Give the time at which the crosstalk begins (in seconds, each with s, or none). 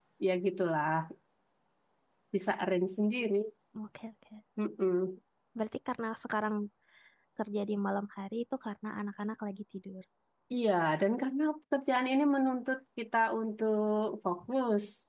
none